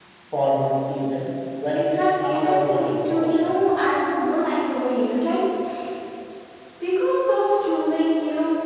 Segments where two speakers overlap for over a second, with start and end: 1.8-3.5

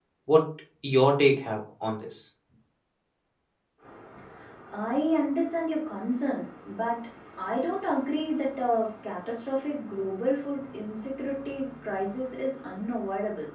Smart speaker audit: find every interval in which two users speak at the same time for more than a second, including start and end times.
none

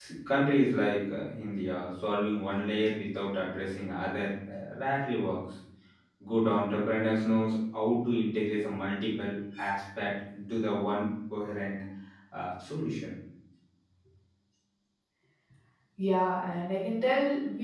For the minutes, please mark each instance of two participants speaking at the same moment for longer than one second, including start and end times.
none

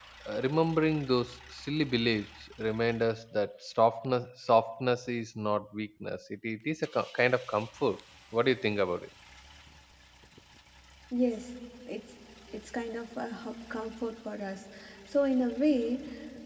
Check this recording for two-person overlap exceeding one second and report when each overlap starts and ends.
none

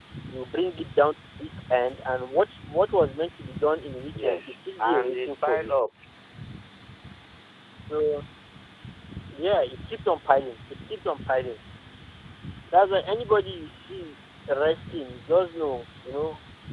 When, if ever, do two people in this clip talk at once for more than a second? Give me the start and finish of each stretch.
4.2-5.7

